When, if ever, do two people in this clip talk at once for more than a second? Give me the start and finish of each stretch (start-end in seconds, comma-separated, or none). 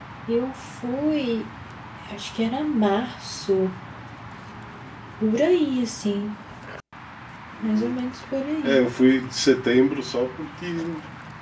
none